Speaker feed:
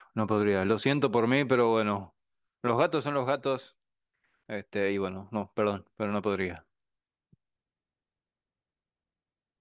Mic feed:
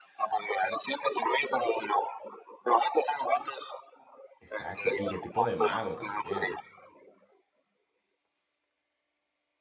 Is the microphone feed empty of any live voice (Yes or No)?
No